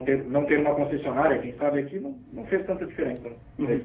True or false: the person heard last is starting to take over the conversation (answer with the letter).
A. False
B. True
B